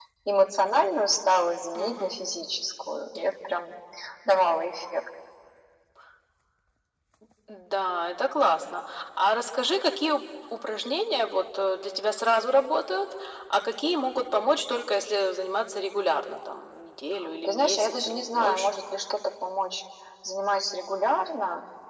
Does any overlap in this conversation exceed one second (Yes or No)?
Yes